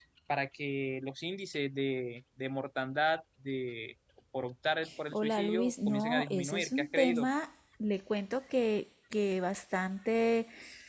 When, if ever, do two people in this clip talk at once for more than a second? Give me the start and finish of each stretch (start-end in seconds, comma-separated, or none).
5.1-7.3